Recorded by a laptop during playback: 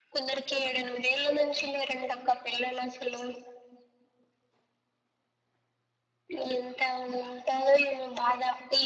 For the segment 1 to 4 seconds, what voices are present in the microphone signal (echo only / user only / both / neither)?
echo only